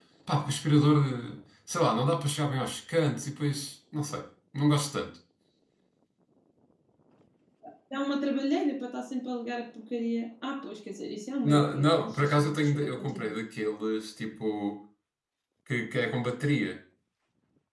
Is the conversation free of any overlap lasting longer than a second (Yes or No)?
No